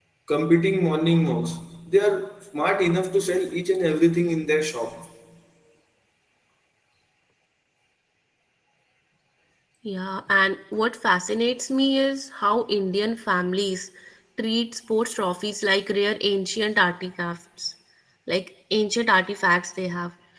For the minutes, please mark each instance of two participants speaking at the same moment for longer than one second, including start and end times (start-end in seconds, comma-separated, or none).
none